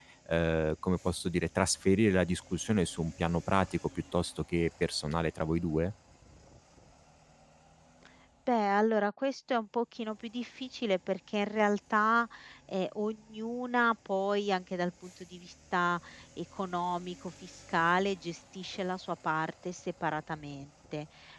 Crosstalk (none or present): none